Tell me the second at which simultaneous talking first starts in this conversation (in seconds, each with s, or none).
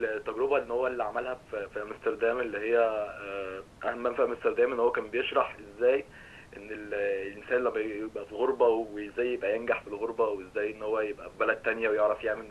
none